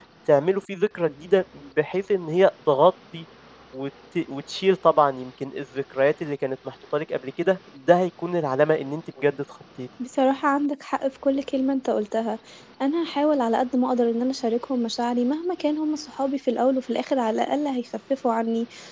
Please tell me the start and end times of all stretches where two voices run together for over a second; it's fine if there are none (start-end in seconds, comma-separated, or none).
none